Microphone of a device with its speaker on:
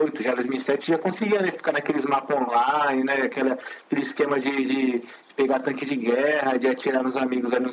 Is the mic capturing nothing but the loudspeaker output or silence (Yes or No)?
Yes